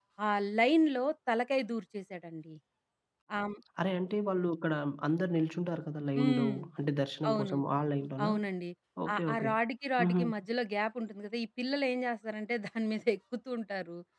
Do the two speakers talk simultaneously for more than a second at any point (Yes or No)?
No